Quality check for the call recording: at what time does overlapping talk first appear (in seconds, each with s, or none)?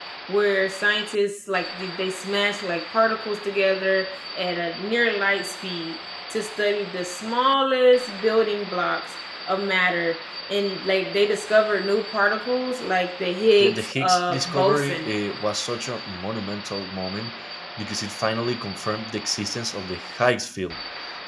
13.6 s